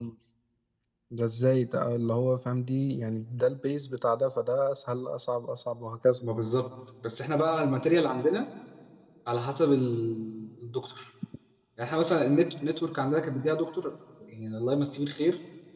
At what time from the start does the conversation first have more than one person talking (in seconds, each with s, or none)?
none